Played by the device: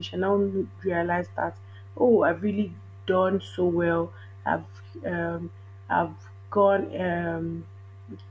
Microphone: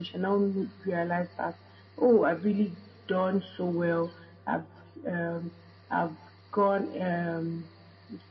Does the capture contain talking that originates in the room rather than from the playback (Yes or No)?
No